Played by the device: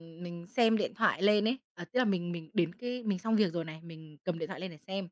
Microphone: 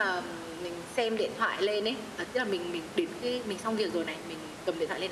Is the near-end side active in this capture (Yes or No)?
No